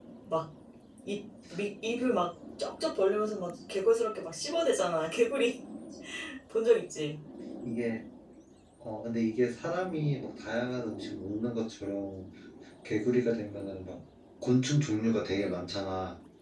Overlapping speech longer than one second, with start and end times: none

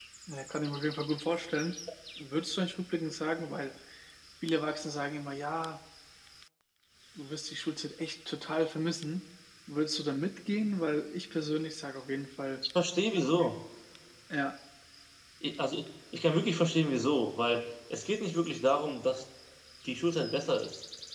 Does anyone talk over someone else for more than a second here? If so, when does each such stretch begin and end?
none

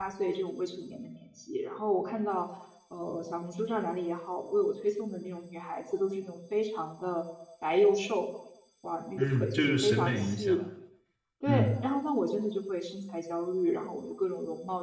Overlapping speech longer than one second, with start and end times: 9.2-10.6

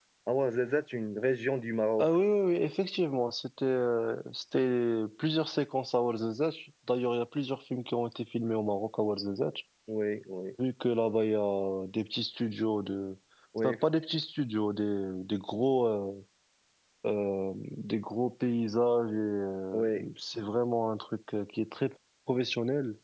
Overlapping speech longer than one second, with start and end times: none

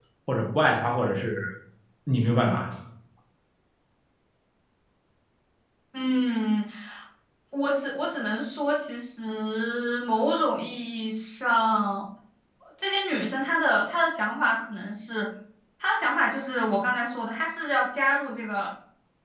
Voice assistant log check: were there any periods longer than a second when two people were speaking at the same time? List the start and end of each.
none

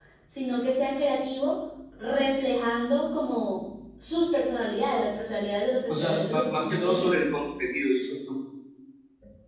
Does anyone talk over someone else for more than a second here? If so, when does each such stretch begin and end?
5.9-7.2

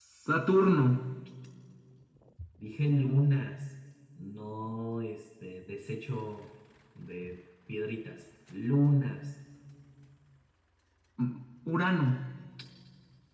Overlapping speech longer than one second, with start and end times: none

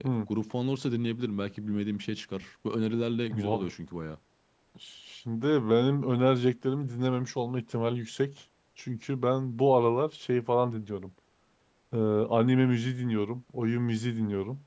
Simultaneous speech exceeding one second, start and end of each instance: none

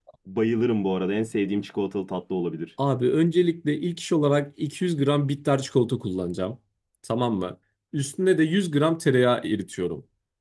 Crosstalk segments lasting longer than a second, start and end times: none

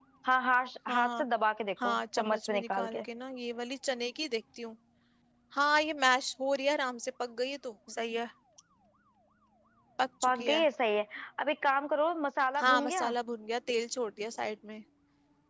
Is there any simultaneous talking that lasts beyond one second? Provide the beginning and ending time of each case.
1.8-3.0

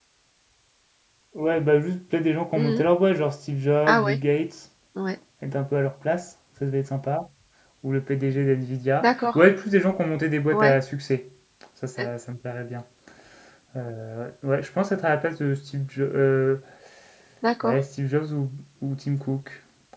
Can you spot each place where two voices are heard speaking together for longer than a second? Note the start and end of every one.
none

